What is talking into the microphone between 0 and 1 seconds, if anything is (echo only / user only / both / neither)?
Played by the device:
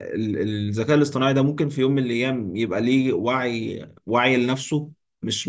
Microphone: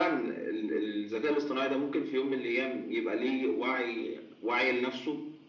echo only